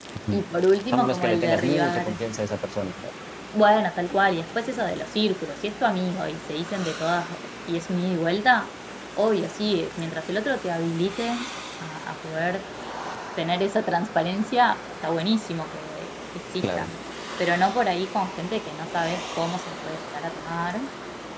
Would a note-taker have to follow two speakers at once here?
Yes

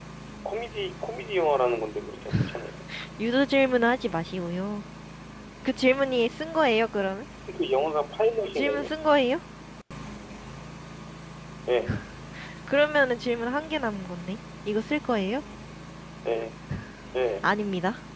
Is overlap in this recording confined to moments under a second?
Yes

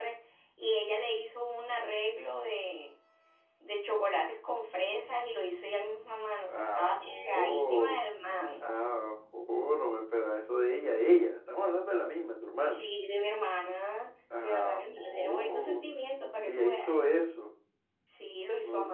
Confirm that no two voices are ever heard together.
No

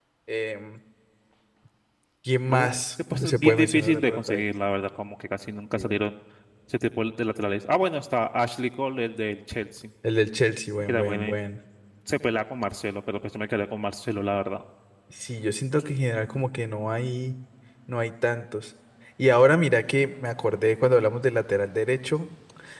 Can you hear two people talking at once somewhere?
Yes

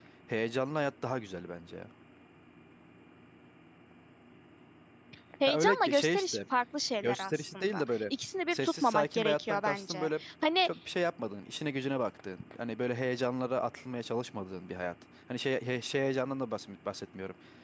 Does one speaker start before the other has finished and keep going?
Yes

